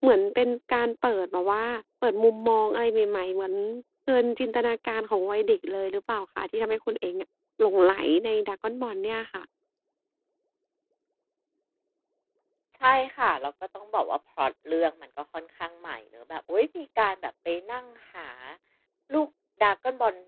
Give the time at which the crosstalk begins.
none

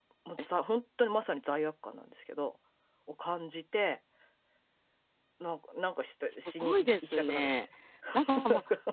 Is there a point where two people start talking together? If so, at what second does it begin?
6.3 s

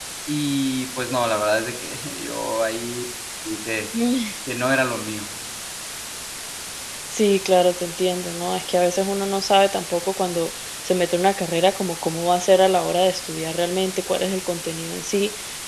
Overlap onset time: none

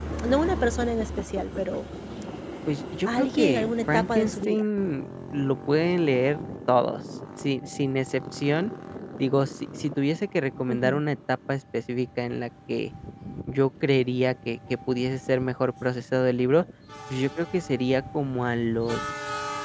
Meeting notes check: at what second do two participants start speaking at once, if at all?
3.1 s

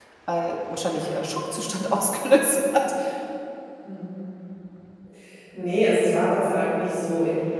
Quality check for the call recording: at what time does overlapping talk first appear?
none

